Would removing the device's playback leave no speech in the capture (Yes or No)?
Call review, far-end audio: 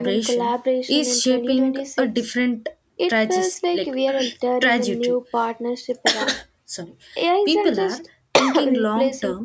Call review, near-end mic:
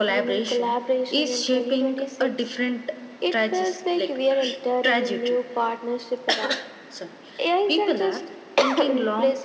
Yes